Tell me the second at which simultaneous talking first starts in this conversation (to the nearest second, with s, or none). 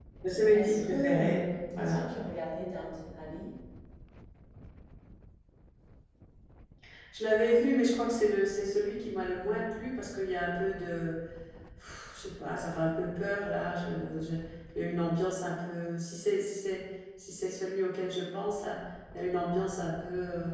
1 s